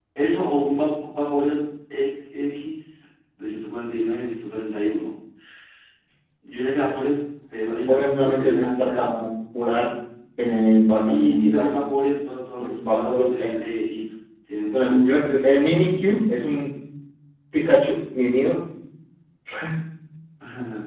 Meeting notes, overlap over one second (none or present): present